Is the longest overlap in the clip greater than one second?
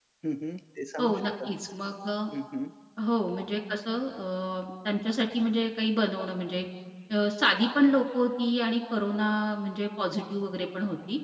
No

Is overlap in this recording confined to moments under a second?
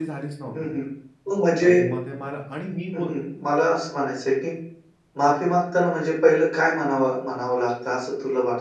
Yes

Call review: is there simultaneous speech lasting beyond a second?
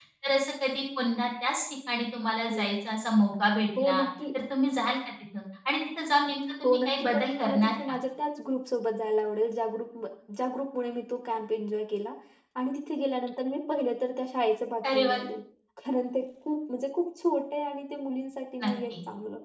Yes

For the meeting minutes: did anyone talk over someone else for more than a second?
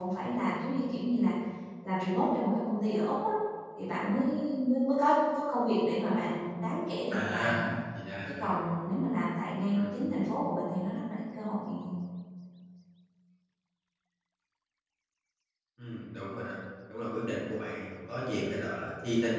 No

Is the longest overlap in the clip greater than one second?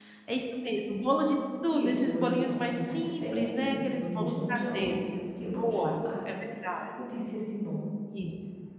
Yes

